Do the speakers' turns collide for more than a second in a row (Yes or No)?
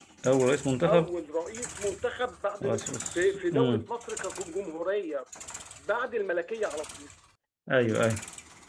Yes